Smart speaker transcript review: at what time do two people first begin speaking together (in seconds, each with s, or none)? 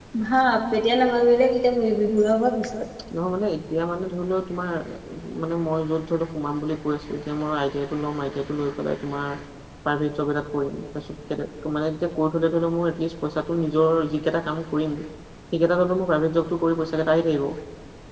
none